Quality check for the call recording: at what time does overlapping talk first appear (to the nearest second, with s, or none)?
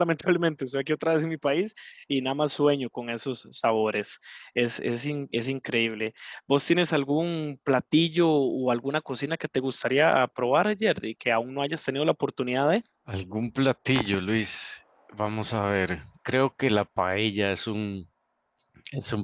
none